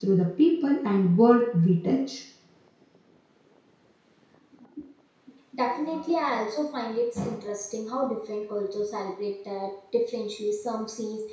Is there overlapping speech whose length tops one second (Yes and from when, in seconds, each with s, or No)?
No